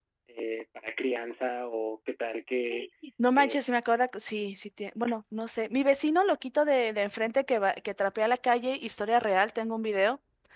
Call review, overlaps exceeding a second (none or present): none